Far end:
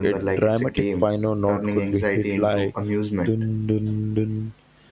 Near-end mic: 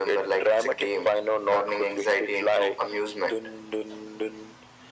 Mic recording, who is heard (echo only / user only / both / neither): echo only